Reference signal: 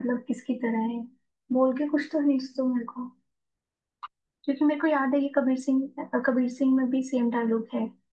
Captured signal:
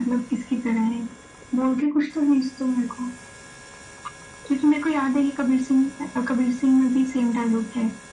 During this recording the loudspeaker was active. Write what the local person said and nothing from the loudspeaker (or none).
none